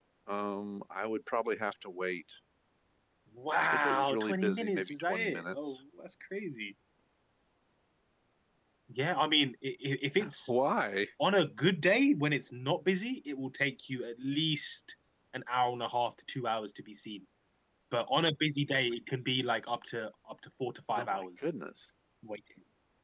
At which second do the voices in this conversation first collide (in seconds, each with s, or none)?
3.7 s